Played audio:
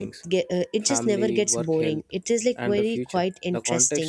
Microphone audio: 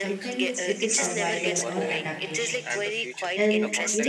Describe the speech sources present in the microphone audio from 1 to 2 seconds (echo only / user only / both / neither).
both